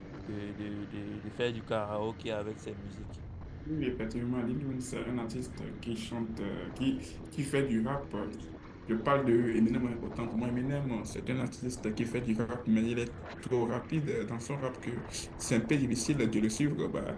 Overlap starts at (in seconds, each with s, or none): none